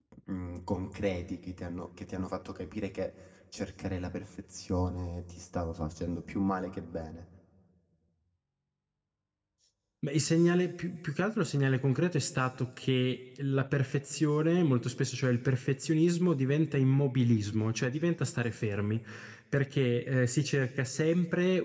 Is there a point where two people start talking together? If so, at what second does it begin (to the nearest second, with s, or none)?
none